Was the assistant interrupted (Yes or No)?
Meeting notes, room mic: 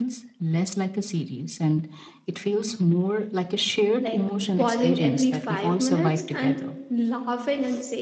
Yes